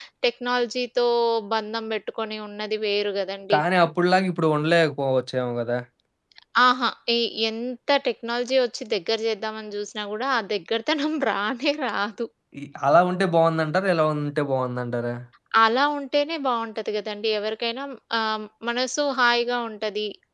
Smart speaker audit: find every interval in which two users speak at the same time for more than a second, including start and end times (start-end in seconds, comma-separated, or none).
none